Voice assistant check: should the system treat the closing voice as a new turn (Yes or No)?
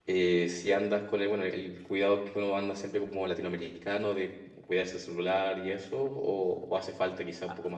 Yes